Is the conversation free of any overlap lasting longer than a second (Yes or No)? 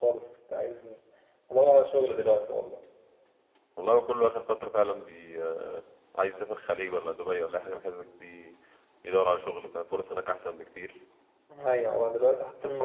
Yes